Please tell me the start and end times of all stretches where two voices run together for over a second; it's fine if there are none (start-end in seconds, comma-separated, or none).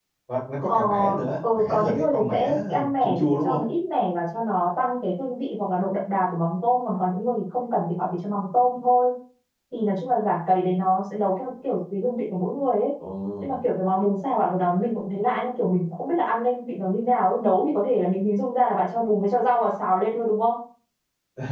1.5-3.6